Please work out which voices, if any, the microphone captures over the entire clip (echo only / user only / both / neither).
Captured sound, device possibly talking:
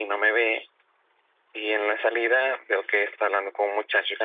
echo only